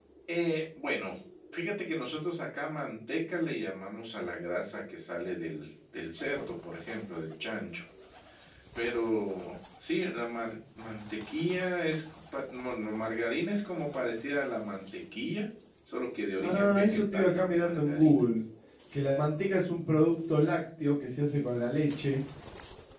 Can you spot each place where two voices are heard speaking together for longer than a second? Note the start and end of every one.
16.4-18.2

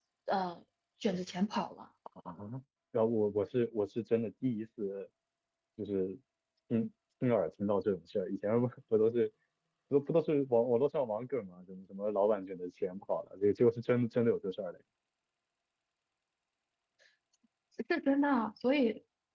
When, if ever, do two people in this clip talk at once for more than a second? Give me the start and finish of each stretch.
none

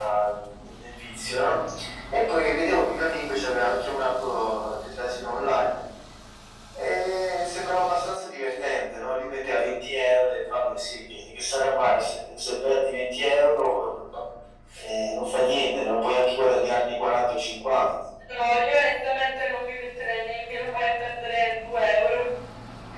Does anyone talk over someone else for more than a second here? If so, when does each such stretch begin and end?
none

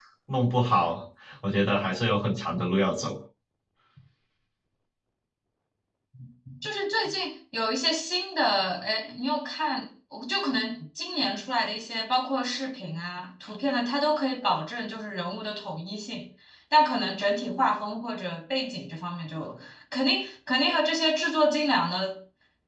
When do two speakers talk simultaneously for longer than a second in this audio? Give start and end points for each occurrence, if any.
none

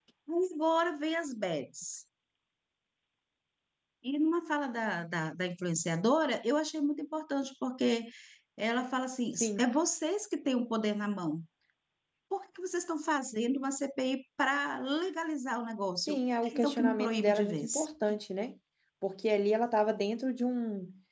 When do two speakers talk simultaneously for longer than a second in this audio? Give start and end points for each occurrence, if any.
16.5-17.9

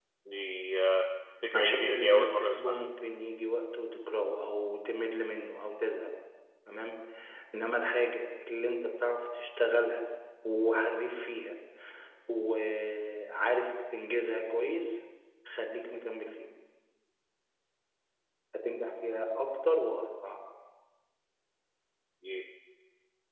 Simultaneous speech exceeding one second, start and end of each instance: 1.5-2.8

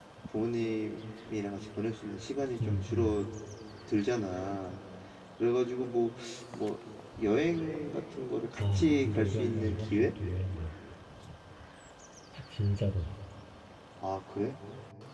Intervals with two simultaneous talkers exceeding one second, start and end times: 8.6-10.1

